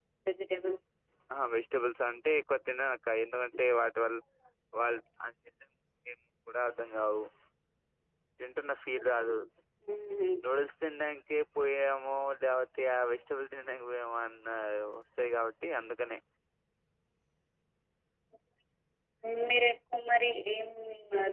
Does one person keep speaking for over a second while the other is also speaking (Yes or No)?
No